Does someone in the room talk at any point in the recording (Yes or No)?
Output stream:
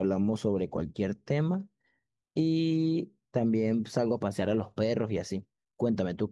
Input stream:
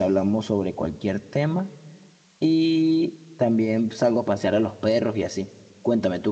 No